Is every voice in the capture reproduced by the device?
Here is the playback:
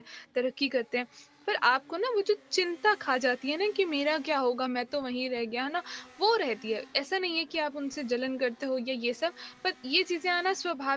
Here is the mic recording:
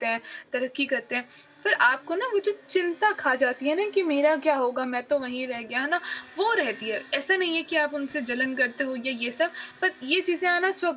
Yes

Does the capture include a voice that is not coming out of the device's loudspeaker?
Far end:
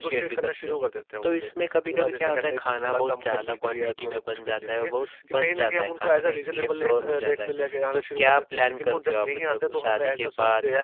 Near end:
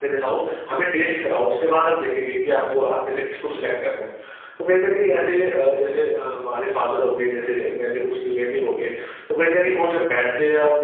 Yes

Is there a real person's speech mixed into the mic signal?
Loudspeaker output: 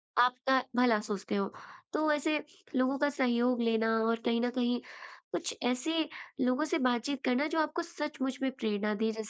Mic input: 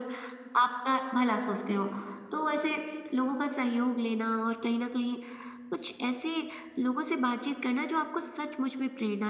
No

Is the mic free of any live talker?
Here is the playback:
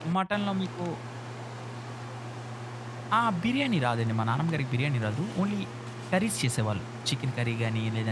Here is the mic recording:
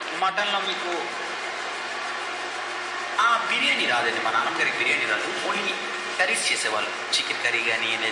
Yes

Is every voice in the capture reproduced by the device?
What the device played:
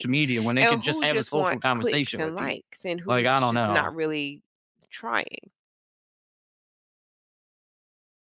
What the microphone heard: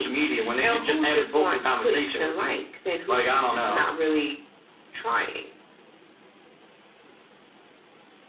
Yes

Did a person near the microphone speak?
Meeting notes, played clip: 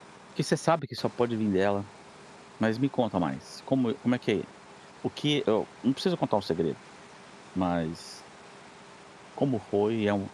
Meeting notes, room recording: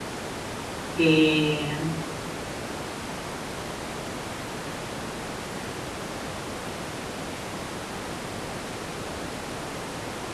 Yes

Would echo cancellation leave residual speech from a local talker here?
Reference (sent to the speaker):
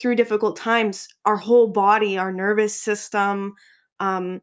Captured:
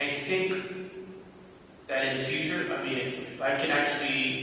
Yes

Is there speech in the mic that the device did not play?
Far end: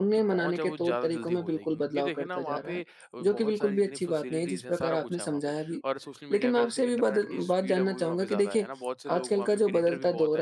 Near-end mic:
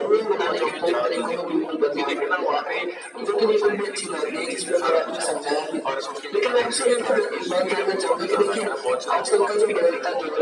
No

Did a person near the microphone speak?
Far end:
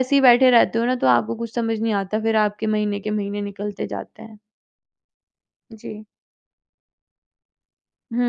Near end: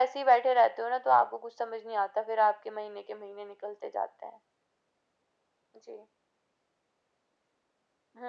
No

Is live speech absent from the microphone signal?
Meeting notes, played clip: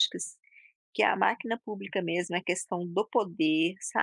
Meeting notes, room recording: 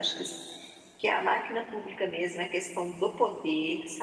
Yes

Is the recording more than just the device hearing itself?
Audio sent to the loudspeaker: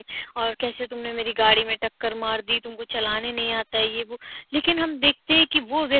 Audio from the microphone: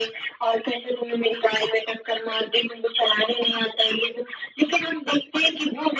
No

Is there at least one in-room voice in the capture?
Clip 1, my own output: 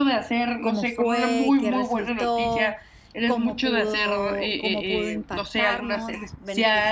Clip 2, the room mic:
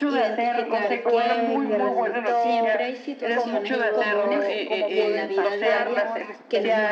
Yes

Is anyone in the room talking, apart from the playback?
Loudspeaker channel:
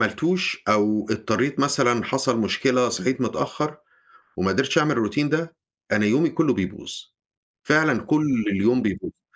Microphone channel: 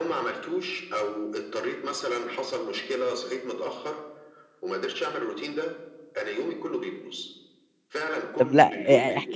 Yes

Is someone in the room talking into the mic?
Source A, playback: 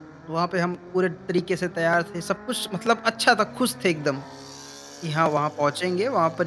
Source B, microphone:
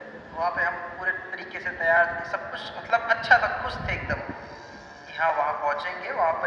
No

